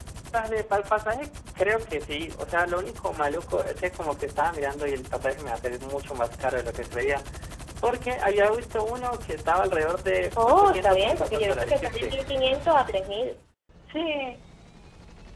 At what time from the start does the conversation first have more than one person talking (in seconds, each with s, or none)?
10.4 s